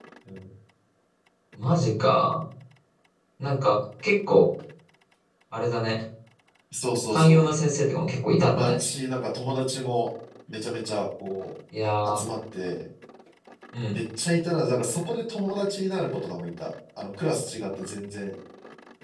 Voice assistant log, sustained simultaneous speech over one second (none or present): none